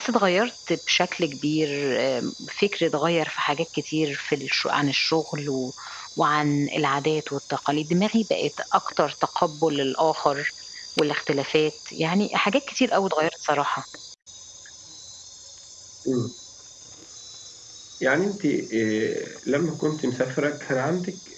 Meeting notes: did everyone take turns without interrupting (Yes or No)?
Yes